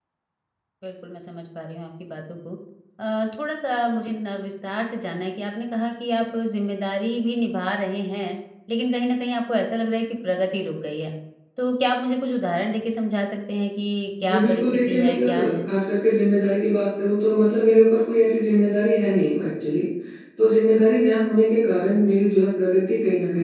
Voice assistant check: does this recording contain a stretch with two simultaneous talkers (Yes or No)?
Yes